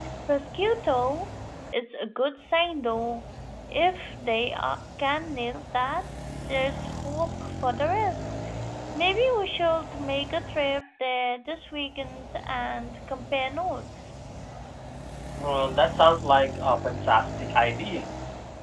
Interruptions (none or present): none